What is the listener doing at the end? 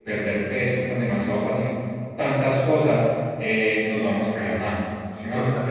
taking over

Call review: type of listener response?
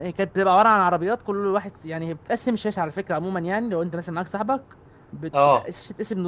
listening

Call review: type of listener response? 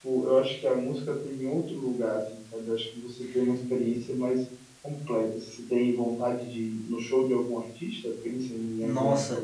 taking over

